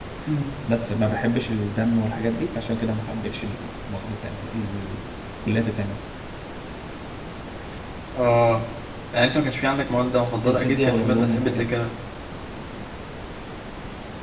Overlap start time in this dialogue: 10.4 s

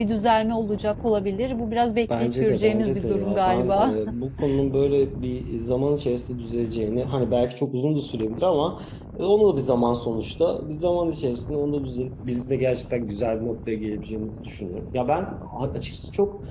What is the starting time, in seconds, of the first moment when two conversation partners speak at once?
2.0 s

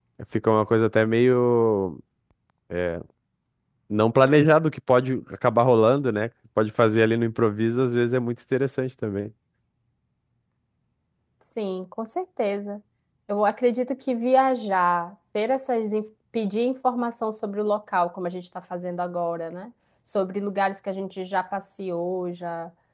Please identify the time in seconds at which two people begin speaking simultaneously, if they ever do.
none

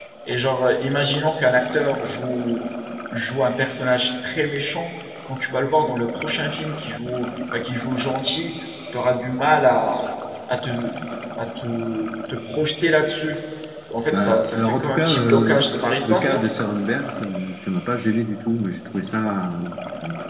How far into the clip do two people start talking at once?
14.1 s

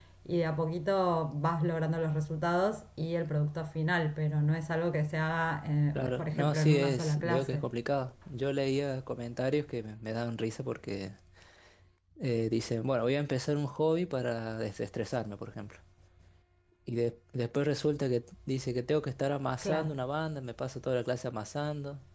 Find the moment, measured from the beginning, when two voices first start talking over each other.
6.0 s

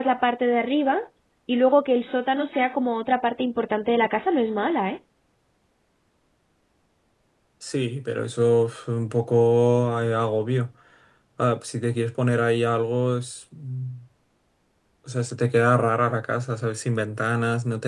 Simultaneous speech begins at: none

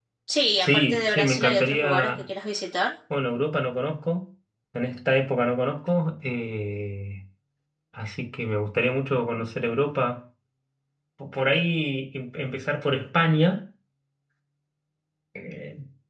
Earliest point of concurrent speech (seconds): 0.6 s

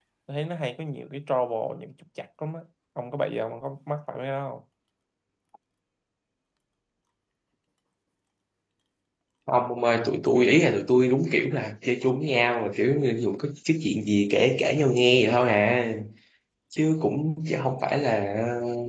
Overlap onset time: none

